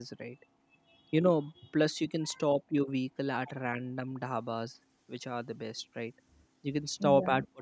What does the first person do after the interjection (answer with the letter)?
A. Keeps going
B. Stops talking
A